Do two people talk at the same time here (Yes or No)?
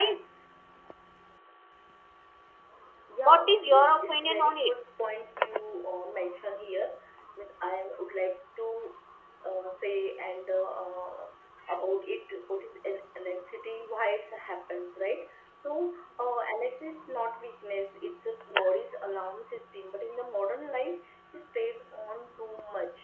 Yes